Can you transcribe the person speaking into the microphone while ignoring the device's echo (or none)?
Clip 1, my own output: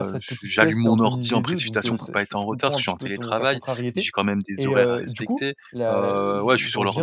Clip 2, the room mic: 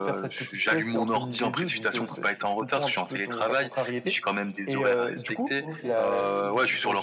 OK.